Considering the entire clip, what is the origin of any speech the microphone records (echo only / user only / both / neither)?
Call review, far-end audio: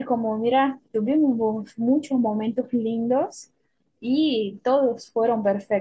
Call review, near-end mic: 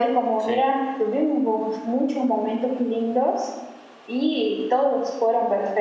both